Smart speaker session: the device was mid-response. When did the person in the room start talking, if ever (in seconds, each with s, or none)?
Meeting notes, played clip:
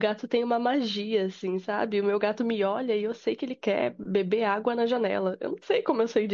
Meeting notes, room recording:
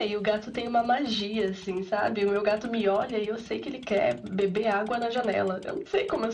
none